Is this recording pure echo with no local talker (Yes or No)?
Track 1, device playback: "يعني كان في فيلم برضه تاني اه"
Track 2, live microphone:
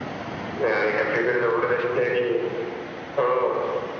Yes